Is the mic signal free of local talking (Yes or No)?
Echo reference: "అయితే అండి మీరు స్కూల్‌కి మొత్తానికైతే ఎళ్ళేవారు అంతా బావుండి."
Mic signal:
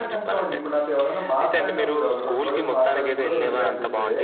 No